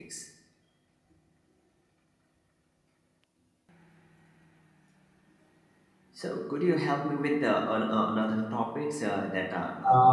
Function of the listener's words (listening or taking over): taking over